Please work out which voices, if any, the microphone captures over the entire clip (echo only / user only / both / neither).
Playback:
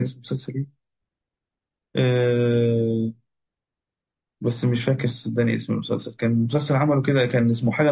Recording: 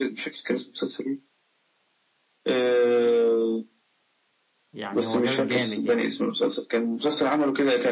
both